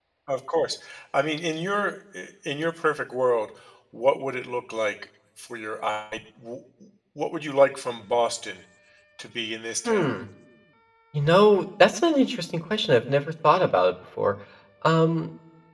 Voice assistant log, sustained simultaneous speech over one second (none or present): none